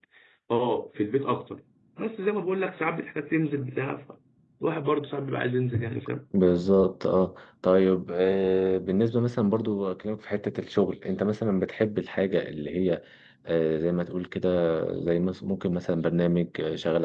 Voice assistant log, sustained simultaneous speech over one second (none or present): none